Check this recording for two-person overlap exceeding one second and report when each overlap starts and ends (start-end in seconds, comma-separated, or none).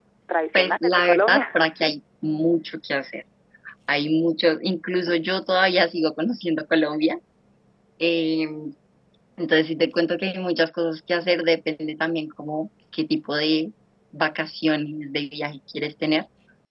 0.5-1.9